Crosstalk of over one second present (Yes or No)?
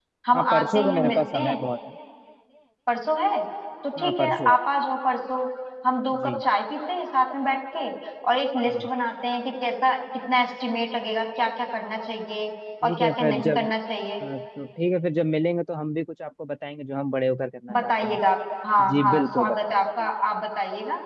Yes